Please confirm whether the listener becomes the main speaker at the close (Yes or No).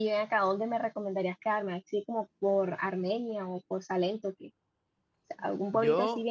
No